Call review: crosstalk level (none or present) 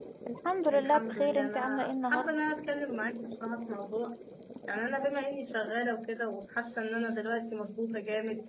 present